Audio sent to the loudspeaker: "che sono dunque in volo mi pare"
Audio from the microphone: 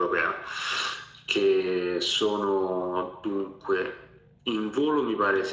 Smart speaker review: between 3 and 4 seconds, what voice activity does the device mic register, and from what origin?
echo only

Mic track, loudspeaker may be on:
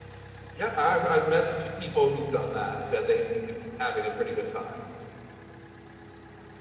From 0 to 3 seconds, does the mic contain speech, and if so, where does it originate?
user only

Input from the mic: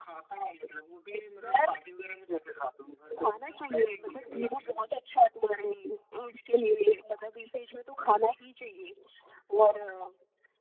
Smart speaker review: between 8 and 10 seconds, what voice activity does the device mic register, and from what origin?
echo only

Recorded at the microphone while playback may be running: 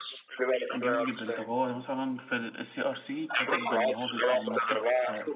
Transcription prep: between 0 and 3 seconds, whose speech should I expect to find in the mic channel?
both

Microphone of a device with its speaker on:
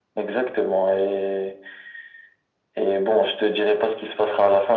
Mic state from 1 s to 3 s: echo only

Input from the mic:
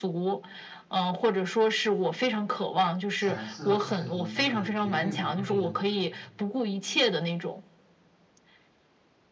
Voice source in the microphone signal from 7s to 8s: echo only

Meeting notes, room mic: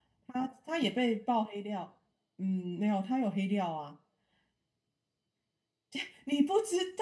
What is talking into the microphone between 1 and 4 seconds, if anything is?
user only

